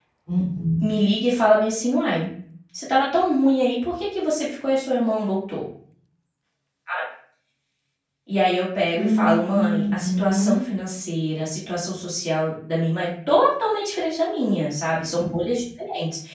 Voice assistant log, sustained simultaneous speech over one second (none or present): present